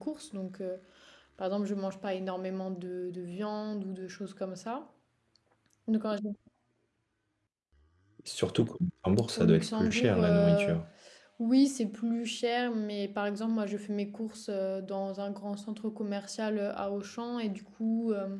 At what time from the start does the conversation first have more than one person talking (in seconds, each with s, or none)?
9.4 s